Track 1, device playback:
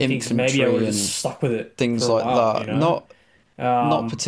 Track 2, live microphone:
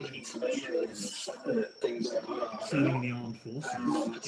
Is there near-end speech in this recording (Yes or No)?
Yes